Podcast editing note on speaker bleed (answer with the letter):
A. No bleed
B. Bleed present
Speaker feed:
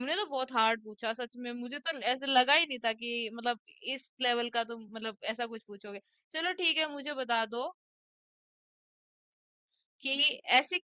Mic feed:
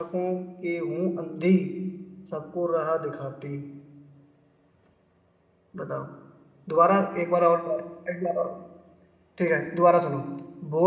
A